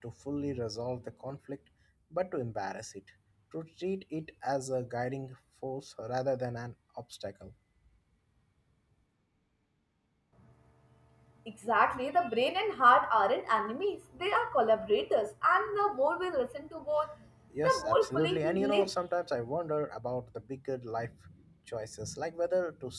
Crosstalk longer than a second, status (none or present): present